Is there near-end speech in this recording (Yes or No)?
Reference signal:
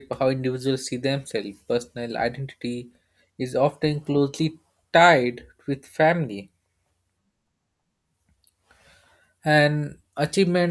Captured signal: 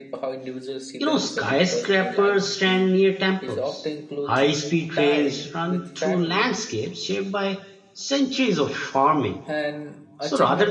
Yes